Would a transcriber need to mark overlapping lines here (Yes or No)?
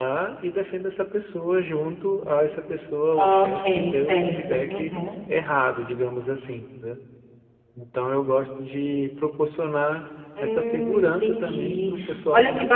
Yes